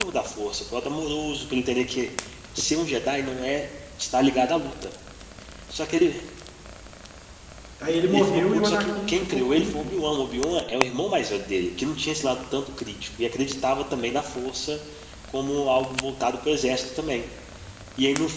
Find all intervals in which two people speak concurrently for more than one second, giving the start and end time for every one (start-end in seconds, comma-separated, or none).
8.1-9.7